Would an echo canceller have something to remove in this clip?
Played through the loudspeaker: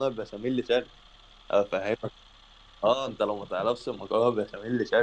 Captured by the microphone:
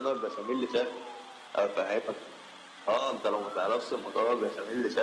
Yes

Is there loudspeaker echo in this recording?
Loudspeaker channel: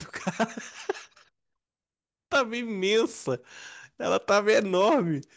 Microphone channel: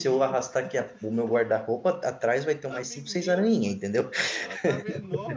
Yes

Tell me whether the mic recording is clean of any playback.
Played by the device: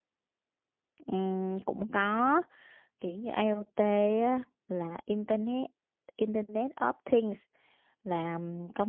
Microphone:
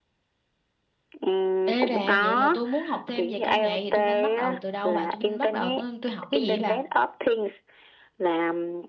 No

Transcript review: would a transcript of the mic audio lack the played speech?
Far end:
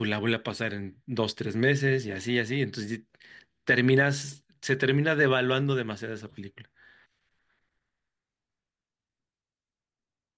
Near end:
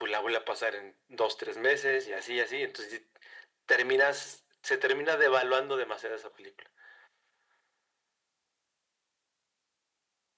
No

